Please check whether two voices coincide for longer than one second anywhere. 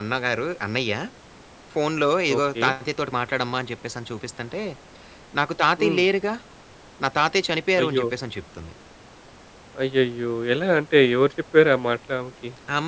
No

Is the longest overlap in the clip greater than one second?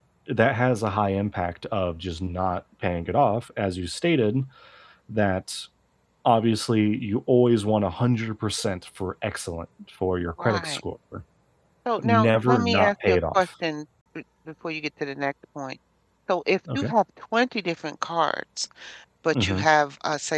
Yes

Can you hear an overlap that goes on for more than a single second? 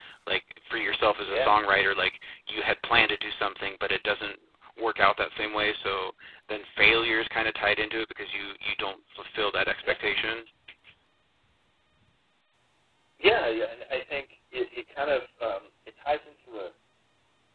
No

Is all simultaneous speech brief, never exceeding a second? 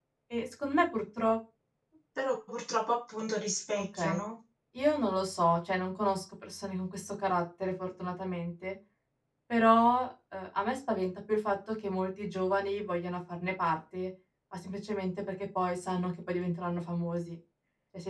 Yes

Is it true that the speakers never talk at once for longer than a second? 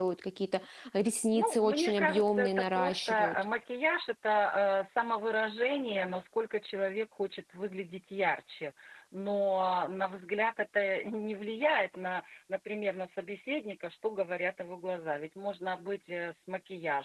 No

